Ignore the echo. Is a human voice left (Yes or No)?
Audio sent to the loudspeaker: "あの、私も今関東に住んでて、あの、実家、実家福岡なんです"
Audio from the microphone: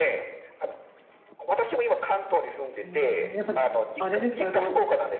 Yes